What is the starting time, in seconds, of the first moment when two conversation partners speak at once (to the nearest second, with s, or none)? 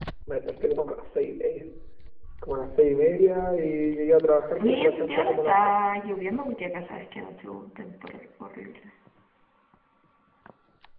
4 s